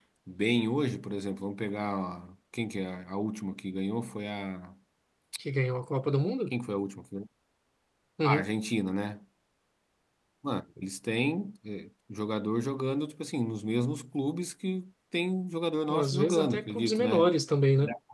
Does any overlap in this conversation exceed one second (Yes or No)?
Yes